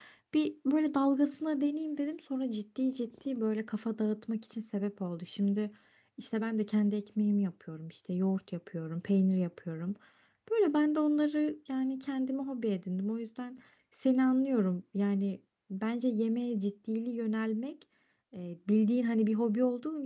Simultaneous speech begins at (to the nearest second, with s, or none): none